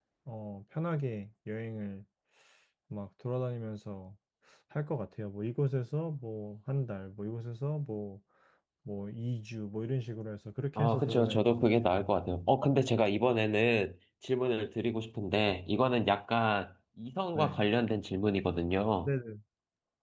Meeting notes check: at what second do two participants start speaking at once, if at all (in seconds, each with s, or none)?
10.8 s